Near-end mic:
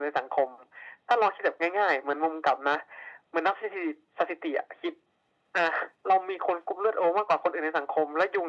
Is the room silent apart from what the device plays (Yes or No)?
Yes